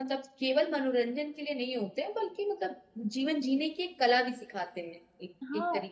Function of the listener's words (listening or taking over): taking over